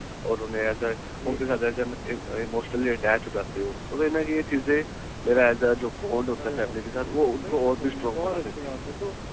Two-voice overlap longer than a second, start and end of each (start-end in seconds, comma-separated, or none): 7.4-8.8